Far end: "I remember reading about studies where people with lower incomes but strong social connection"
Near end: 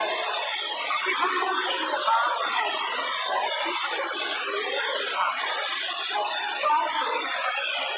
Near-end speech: none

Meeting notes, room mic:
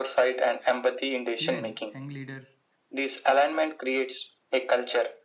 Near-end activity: present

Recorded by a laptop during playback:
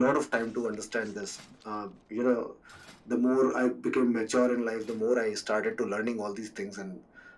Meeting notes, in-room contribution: none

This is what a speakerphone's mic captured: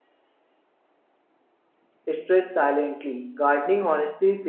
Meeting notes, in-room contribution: present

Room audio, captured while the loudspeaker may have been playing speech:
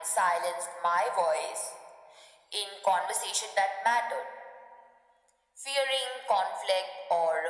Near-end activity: none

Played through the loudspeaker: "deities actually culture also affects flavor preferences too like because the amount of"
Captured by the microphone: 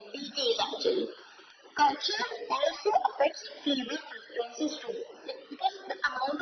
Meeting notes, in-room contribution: none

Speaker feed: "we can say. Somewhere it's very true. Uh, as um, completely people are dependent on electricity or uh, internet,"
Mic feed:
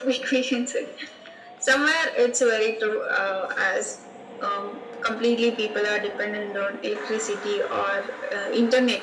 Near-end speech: none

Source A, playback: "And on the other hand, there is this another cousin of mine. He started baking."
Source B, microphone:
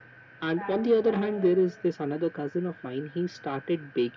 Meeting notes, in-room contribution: present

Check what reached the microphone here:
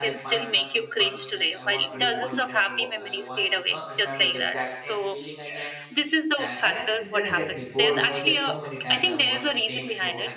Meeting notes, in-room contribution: present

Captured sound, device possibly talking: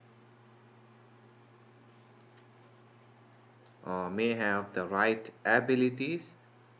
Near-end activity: present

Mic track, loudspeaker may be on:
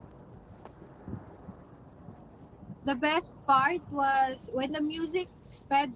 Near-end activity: present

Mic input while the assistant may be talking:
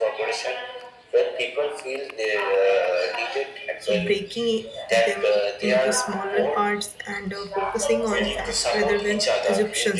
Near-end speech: present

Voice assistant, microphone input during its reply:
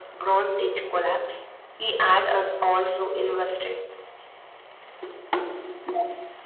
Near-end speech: none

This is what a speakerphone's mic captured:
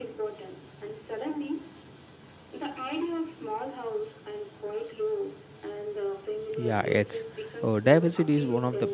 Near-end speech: present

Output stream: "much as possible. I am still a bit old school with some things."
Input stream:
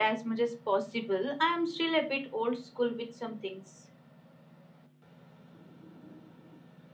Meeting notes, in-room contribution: none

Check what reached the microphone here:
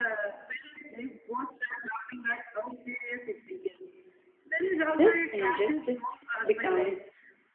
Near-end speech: present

